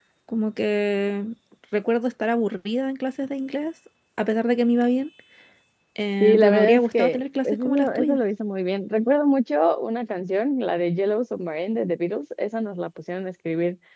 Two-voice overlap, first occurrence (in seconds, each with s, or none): 6.2 s